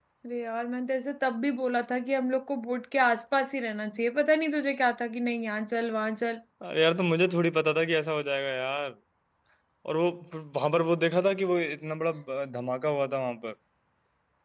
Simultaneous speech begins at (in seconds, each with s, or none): none